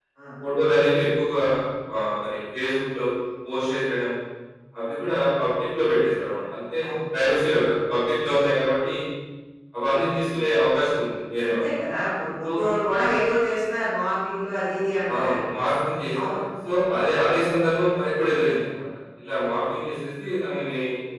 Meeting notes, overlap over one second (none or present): none